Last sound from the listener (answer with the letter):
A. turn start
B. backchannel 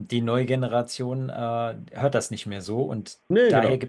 B